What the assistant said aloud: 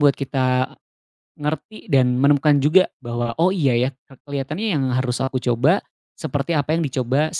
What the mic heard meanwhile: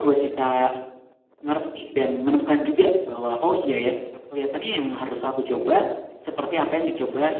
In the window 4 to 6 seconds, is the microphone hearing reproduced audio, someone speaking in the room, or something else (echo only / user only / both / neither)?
echo only